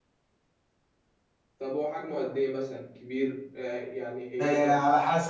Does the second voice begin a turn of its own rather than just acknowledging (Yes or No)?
Yes